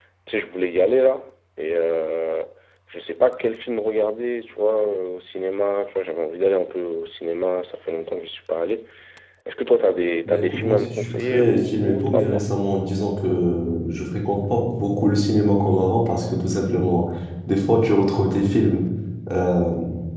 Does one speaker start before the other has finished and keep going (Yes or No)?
Yes